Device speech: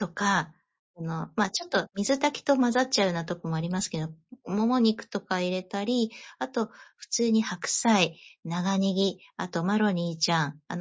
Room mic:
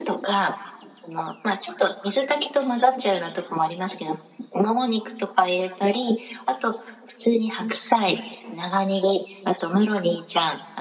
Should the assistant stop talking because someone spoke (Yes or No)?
No